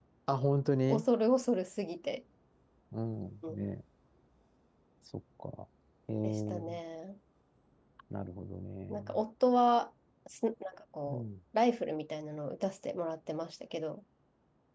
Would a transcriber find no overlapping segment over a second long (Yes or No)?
Yes